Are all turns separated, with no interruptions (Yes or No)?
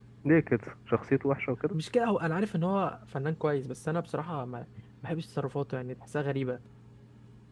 Yes